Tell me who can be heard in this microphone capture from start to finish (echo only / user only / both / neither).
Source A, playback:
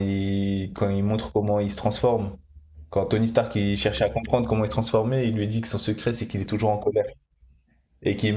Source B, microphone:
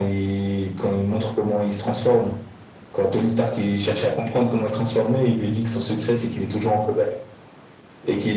echo only